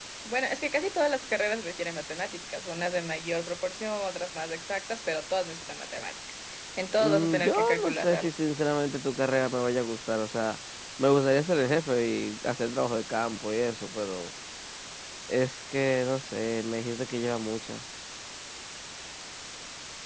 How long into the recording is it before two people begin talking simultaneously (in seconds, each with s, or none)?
7.0 s